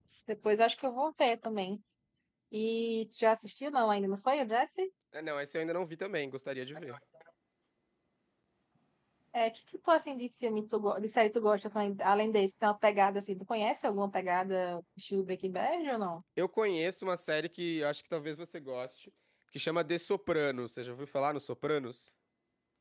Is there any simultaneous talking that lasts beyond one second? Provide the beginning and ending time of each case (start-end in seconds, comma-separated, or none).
none